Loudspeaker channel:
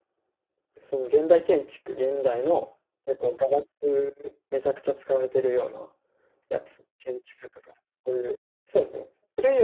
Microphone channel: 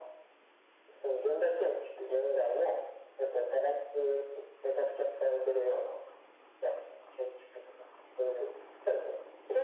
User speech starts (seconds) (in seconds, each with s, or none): none